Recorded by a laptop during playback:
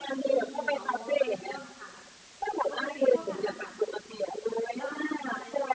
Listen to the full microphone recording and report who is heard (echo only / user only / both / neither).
both